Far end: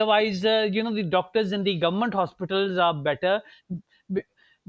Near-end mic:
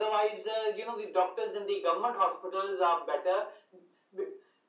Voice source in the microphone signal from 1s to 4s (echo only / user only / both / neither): echo only